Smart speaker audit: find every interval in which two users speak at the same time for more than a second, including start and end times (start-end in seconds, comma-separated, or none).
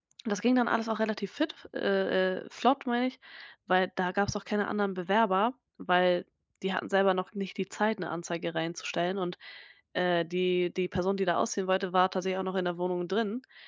none